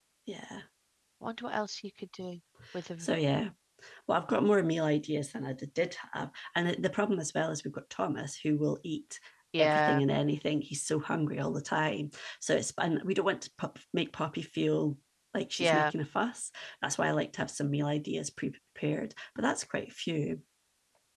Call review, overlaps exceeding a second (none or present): none